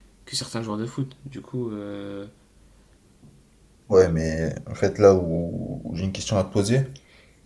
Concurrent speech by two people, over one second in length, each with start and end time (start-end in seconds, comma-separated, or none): none